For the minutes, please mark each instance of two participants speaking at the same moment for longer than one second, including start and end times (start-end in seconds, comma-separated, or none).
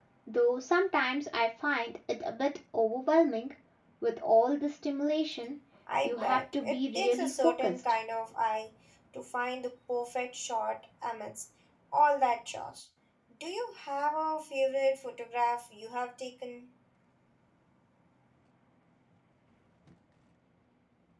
6.0-7.8